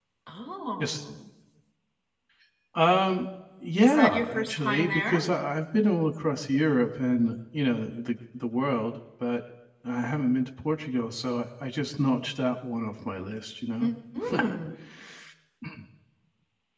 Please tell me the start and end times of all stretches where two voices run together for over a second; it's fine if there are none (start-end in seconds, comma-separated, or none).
3.8-5.3